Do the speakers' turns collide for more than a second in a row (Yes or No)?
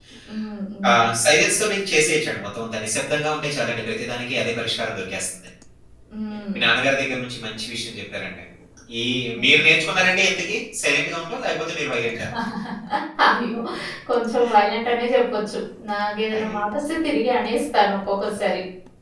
No